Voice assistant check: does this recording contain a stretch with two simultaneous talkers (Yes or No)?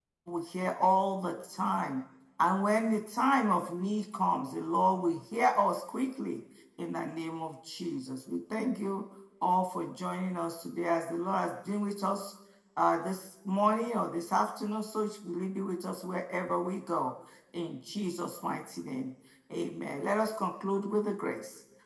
No